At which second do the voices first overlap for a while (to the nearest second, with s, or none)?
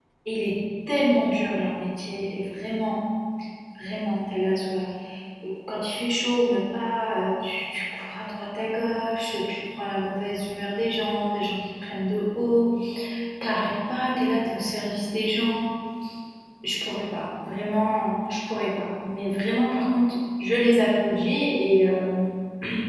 none